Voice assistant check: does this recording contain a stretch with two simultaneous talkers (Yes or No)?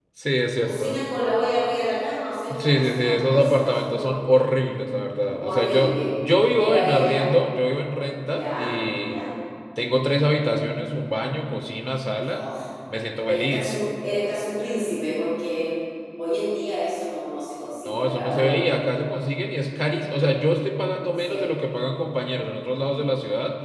Yes